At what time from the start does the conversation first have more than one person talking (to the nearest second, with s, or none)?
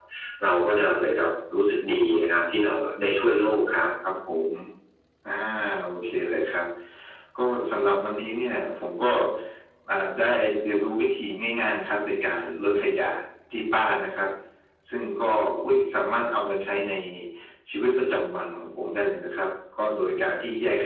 none